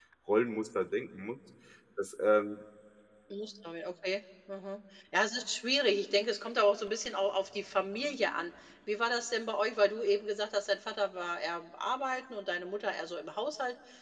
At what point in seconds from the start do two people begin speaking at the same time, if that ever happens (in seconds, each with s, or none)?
none